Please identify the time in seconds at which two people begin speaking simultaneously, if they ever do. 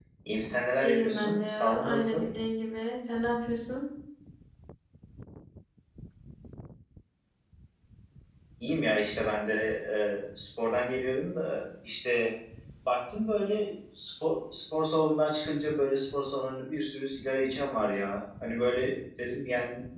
0.8 s

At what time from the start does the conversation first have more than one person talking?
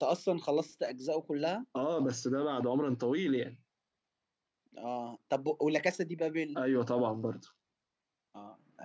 none

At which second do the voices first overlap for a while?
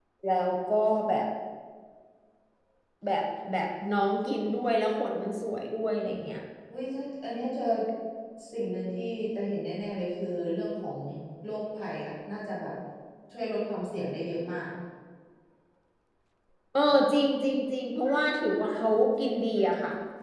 none

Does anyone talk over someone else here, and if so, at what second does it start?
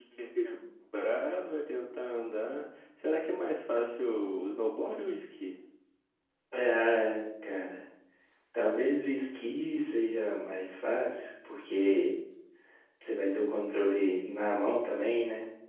none

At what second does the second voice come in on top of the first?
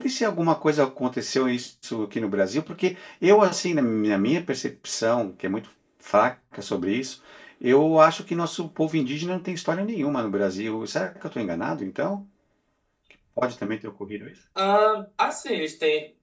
none

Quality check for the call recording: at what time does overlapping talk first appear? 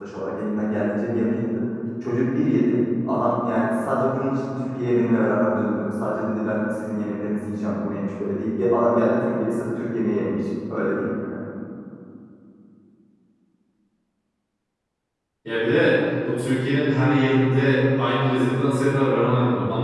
none

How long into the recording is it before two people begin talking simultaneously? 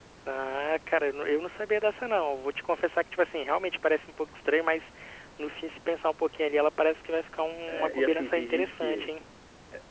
7.7 s

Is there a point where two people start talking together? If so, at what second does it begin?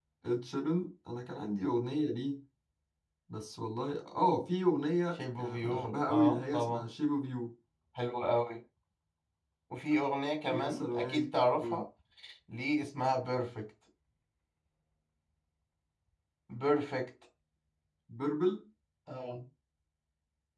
5.2 s

